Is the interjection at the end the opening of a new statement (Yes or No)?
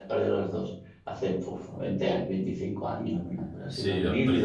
Yes